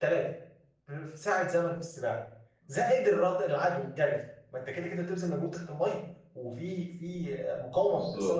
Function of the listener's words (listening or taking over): listening